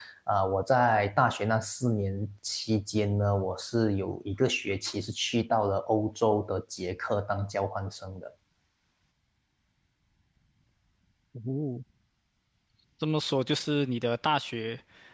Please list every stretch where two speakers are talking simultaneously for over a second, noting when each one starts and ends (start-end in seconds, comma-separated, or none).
none